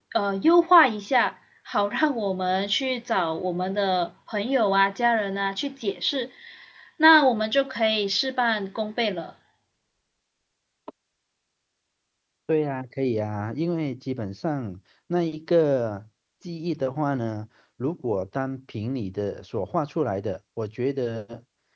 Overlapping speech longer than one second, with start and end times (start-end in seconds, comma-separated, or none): none